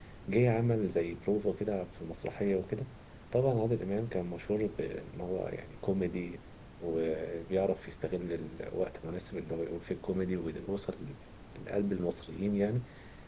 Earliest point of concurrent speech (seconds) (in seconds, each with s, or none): none